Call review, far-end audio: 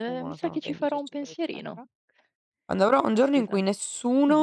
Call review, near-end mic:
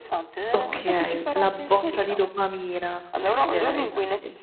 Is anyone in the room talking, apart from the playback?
Yes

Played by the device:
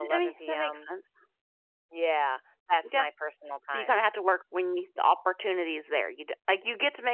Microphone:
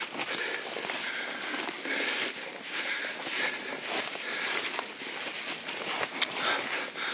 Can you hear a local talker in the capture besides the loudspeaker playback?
No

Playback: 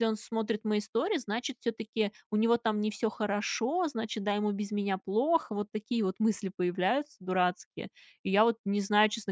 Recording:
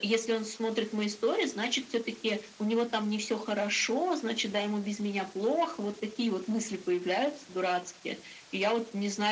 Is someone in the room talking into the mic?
No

